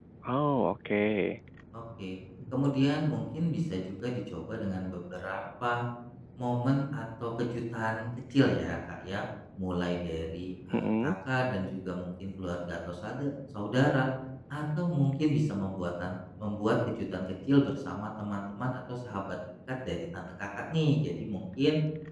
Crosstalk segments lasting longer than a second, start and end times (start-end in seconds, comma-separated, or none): none